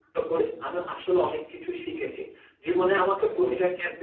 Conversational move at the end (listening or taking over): listening